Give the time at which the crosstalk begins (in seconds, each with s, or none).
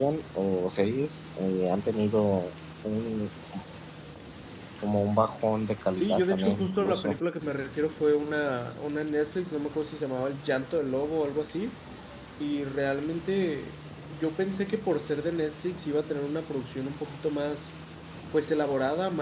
5.9 s